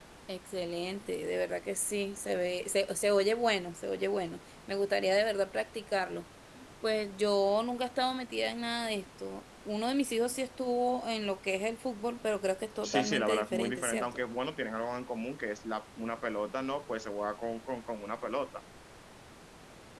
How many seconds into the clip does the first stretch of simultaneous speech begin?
13 s

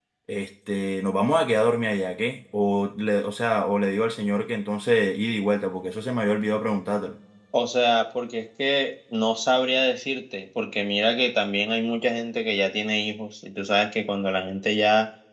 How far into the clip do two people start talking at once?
none

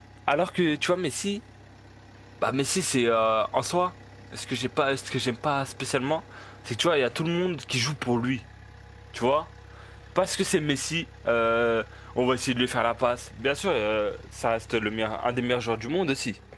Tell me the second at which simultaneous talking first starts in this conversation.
none

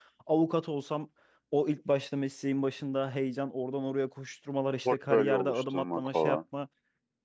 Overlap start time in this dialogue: 5 s

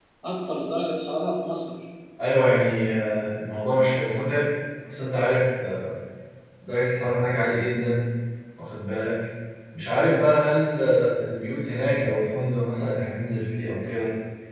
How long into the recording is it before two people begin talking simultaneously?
none

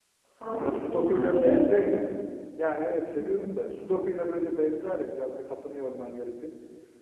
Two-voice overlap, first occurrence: 1 s

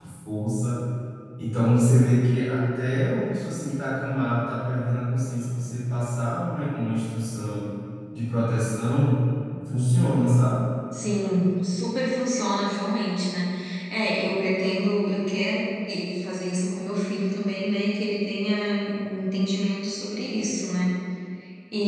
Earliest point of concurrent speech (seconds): none

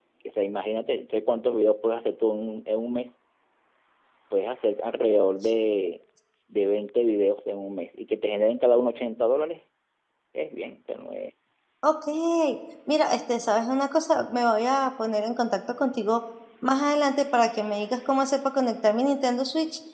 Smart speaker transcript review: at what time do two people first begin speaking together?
none

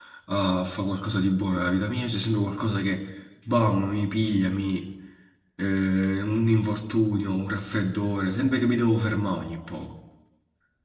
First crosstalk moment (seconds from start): none

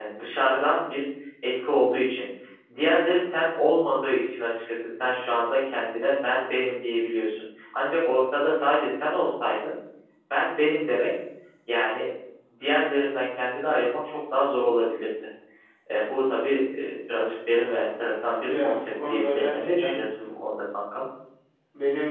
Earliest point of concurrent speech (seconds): 18 s

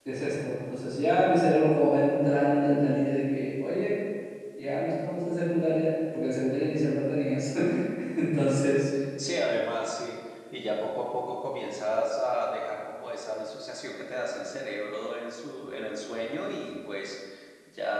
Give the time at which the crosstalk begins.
none

